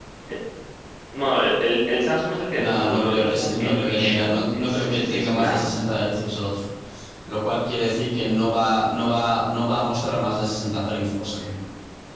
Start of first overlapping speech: 2.5 s

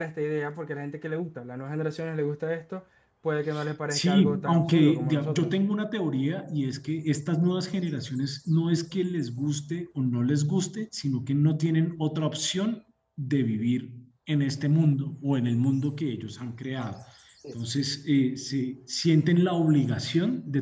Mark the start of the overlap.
3.9 s

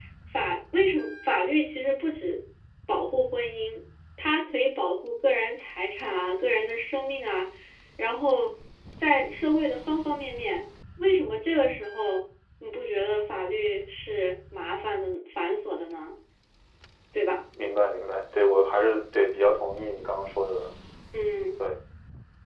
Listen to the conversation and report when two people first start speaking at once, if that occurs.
none

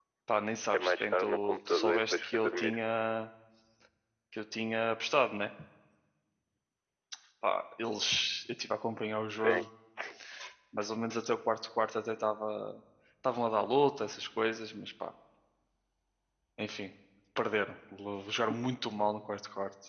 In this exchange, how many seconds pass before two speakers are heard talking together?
0.7 s

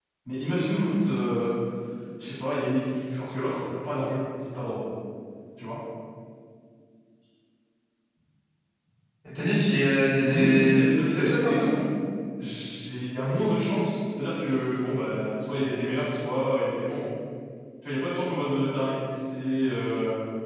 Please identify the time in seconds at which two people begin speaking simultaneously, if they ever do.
10.3 s

